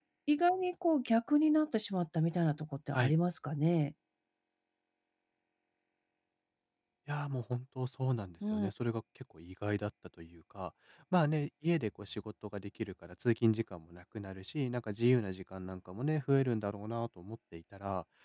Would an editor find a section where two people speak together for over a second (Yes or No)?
No